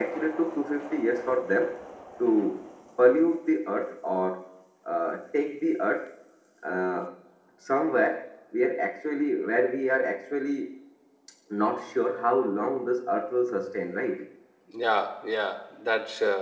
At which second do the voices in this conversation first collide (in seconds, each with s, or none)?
none